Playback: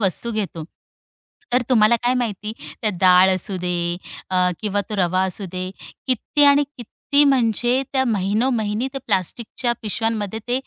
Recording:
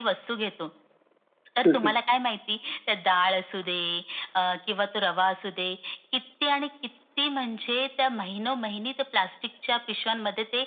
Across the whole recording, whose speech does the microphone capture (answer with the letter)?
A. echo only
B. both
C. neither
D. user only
B